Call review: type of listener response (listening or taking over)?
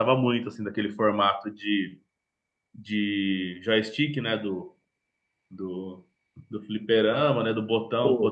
listening